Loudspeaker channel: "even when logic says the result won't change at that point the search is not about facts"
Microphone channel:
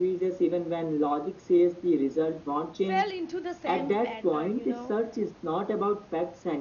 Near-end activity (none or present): present